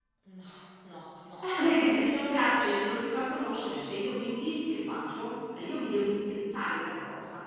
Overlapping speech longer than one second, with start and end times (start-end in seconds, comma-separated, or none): 1.4-3.9